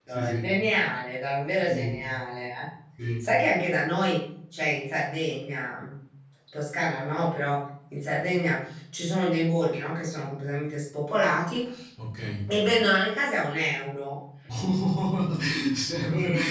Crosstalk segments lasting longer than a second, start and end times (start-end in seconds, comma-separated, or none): none